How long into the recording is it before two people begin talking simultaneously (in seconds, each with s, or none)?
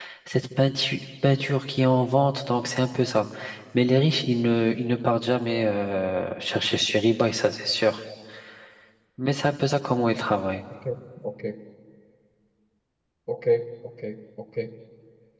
none